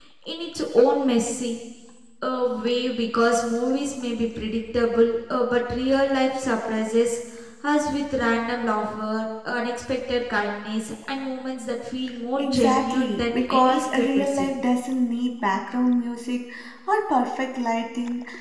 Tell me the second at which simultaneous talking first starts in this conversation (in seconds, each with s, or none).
12.3 s